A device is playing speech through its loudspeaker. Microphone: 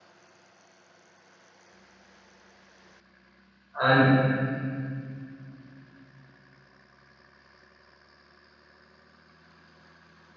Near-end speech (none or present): present